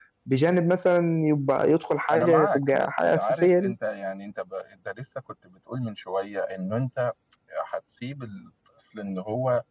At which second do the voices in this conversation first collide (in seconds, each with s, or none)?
2.1 s